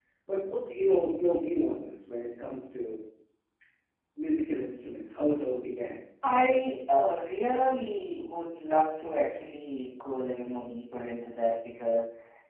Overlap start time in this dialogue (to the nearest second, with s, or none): none